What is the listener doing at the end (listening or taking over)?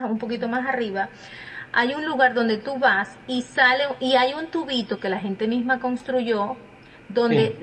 listening